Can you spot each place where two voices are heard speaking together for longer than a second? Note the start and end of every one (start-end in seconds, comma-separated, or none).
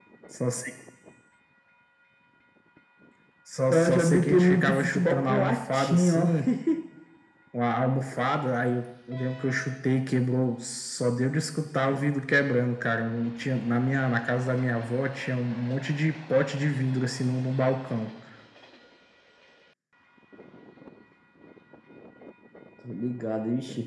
3.7-6.3